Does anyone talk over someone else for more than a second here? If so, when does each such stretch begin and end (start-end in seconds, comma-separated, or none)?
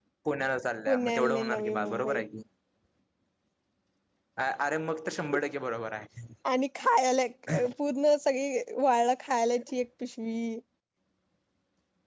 0.9-2.2